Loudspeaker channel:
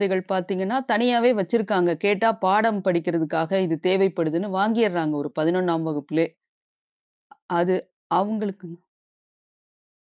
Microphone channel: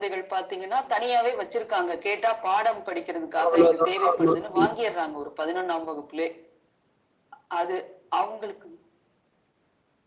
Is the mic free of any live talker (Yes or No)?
No